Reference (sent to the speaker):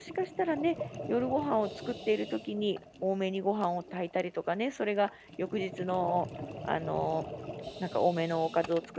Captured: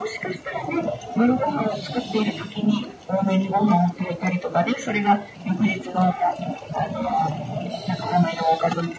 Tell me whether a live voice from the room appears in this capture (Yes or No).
No